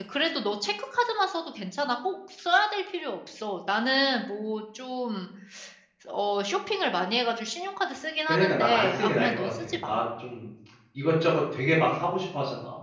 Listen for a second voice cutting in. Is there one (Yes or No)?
Yes